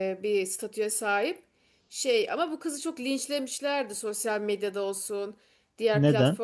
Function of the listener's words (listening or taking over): listening